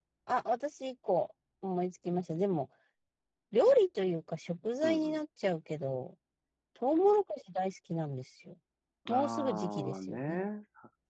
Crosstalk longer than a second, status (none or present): present